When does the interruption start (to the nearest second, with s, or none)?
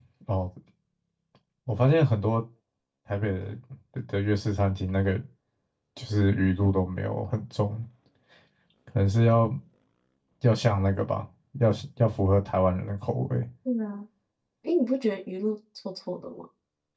none